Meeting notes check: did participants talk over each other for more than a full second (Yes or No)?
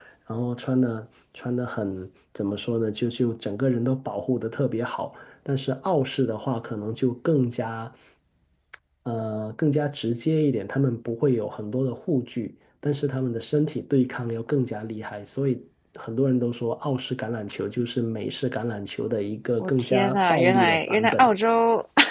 Yes